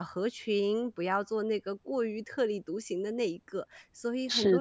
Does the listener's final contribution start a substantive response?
Yes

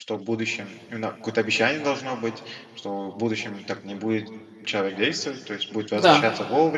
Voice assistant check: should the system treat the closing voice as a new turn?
No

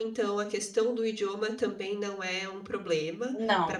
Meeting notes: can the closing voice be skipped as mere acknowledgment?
Yes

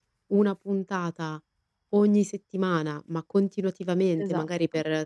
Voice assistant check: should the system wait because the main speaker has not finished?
Yes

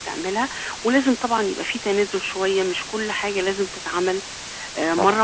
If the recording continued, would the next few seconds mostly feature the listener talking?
No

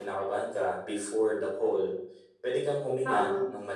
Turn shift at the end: No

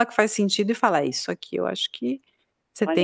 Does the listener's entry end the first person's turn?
Yes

